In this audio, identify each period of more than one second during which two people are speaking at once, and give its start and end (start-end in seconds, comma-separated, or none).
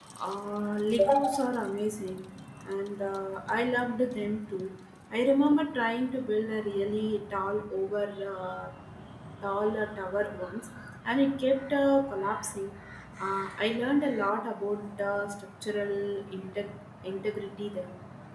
none